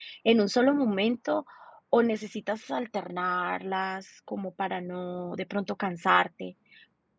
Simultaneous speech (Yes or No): No